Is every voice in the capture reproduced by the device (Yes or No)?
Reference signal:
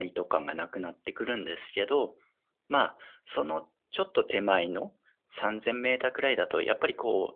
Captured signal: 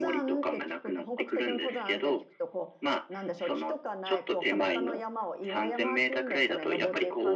No